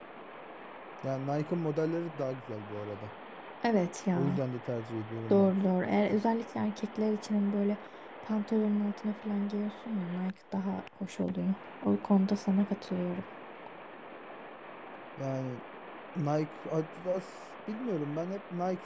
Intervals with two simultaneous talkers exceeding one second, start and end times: none

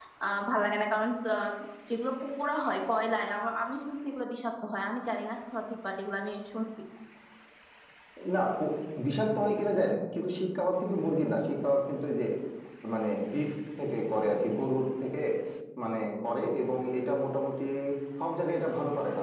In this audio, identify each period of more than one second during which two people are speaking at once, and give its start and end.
none

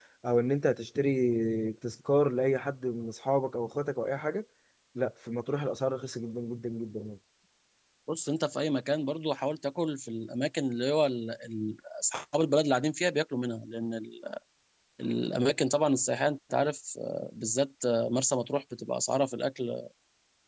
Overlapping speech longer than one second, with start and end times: none

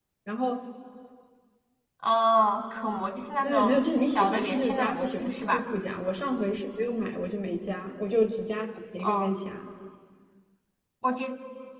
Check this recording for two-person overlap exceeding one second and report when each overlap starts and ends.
3.4-5.6

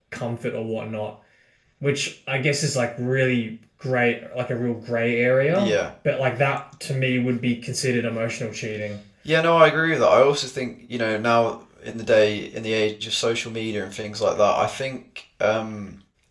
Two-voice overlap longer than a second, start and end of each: none

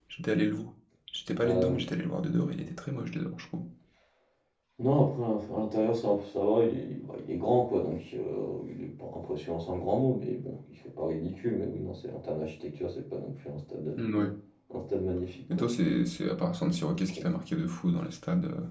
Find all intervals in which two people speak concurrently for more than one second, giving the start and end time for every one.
none

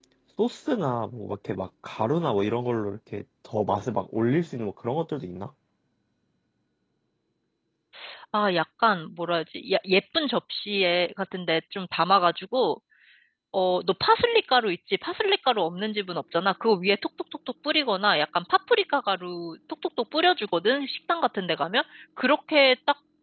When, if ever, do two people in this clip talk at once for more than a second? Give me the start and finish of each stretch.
none

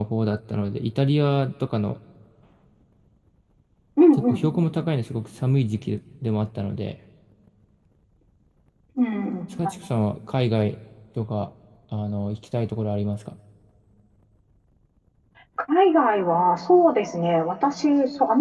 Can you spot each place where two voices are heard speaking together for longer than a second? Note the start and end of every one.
none

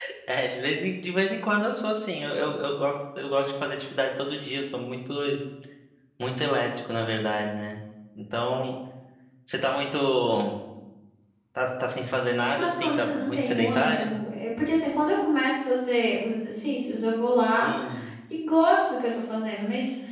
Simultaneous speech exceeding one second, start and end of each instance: 12.5-14.2

